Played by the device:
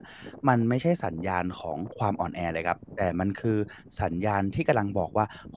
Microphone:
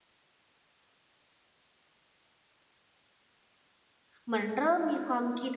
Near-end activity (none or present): present